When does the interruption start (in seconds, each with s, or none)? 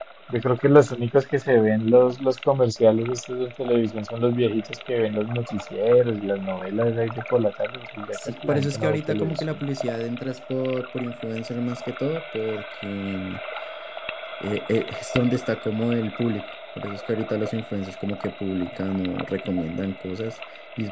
8.1 s